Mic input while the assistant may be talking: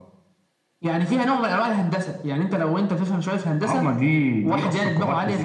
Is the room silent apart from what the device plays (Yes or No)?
Yes